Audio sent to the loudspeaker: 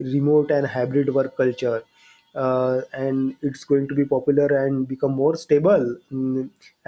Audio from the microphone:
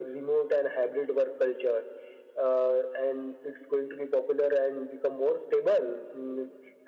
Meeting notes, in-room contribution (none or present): none